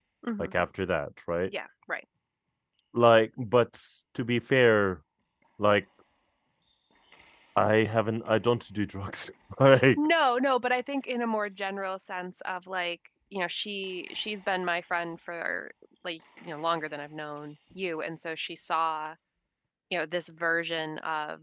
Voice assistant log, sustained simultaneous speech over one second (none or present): none